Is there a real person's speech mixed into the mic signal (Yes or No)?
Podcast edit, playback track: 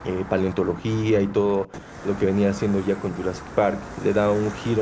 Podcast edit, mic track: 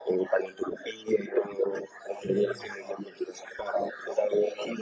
Yes